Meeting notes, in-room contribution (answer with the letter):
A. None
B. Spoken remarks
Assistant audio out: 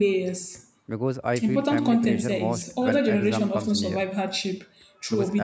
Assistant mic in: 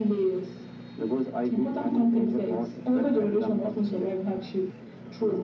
A